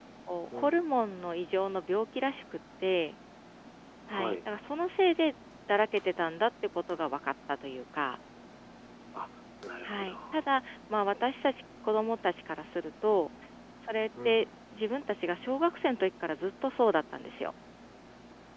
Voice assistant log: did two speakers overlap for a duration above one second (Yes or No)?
No